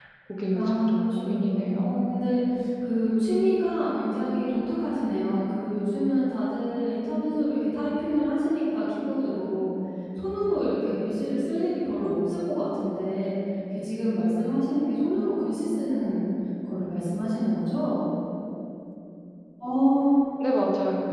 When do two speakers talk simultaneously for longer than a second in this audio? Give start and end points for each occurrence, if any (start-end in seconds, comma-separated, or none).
0.5-1.9